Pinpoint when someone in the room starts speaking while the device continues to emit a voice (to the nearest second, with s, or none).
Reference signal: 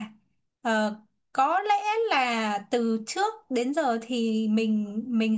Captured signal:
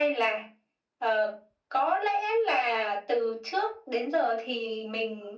none